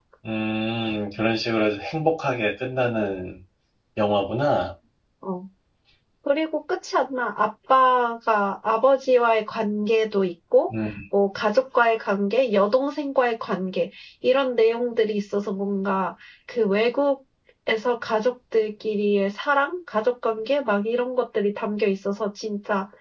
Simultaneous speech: No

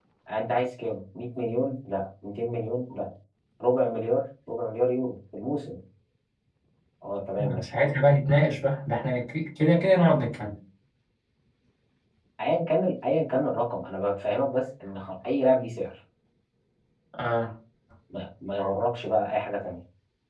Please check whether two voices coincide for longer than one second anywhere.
No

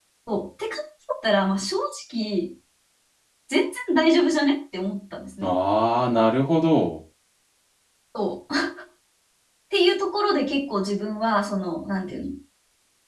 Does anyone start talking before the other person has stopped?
No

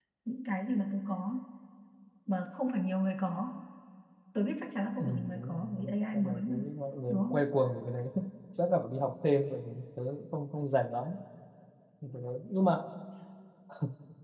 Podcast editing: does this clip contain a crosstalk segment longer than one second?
Yes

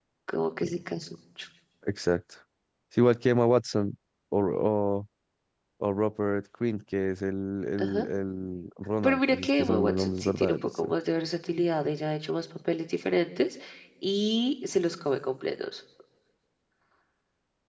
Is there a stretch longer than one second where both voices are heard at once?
Yes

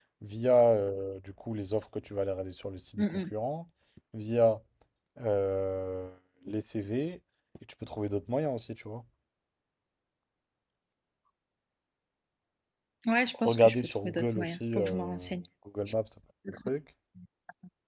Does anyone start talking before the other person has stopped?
Yes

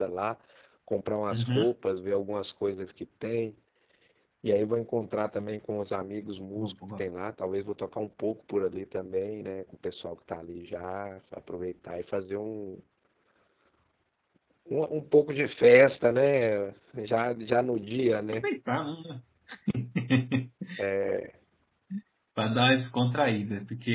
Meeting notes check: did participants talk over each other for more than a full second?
No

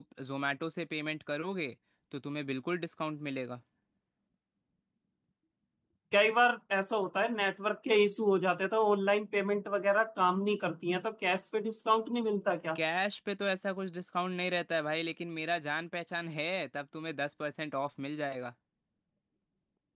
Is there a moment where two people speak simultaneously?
No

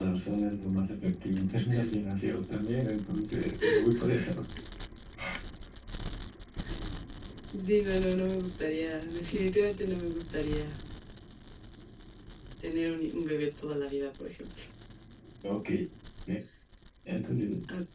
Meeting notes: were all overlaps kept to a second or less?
Yes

